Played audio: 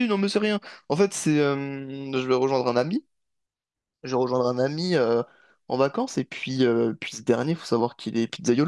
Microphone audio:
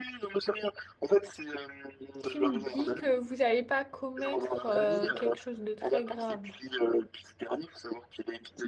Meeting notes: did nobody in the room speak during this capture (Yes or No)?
No